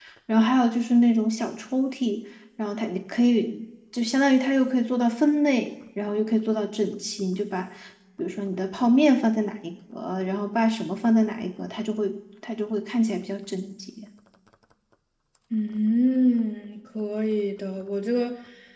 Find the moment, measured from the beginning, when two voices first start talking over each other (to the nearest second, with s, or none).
none